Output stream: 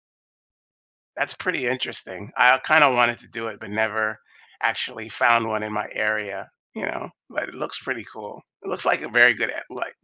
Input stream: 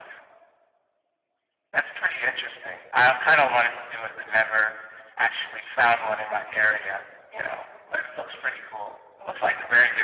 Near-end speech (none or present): none